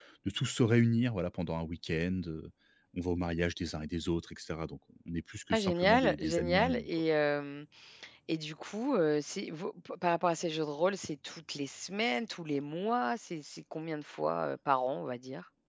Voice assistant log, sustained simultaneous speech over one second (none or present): present